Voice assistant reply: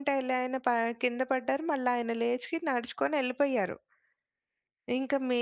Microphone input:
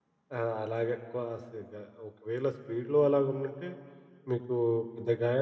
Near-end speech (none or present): present